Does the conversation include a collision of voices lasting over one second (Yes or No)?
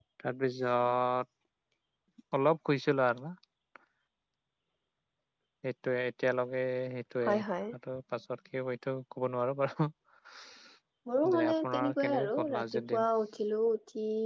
Yes